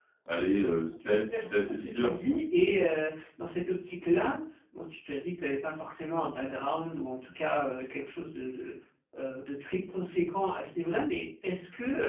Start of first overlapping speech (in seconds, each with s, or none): 1.0 s